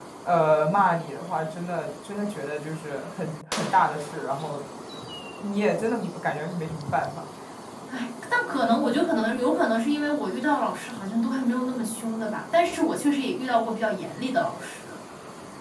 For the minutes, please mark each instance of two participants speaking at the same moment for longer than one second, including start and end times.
none

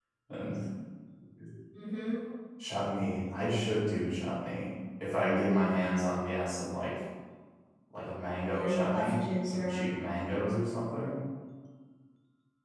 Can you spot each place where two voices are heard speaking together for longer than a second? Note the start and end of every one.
8.5-9.9

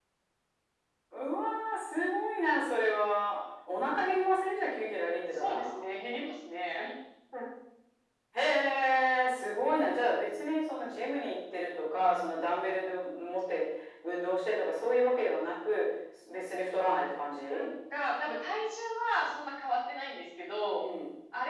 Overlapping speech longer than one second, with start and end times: none

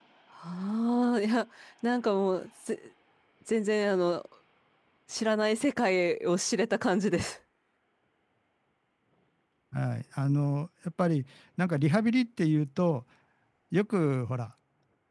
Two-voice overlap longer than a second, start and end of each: none

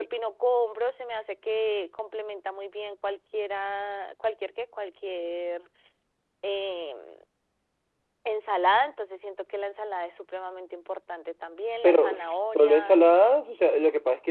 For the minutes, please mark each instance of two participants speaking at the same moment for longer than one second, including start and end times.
none

